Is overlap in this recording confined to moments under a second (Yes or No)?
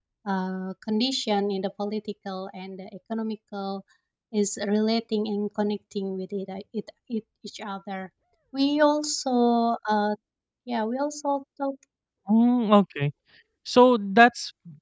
Yes